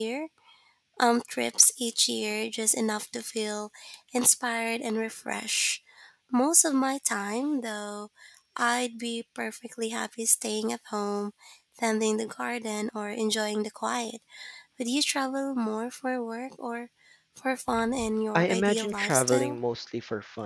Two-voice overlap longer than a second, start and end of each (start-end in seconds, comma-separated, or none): 18.4-19.6